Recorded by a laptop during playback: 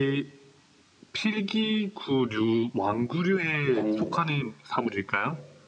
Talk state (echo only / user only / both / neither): both